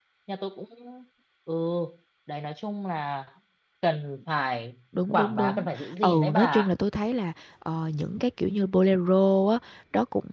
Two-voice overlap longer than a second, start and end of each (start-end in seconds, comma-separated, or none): 5.1-6.7